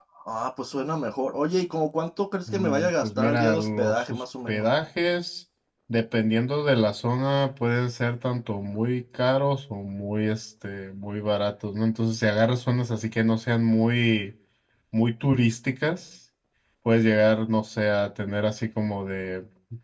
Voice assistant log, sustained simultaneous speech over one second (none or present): present